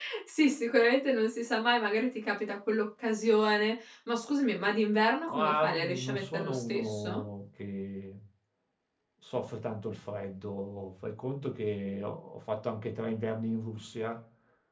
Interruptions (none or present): present